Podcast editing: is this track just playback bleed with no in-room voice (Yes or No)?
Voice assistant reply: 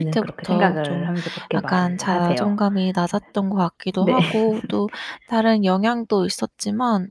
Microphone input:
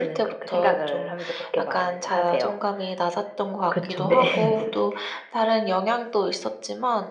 No